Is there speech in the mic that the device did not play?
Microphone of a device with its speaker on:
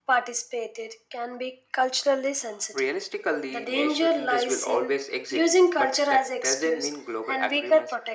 No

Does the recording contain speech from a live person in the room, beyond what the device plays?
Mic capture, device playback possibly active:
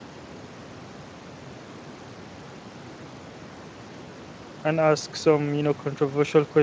Yes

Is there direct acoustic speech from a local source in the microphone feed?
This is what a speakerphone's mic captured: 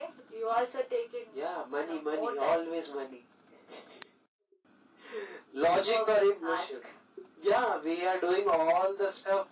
No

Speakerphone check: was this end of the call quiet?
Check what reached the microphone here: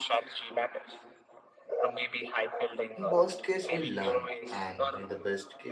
No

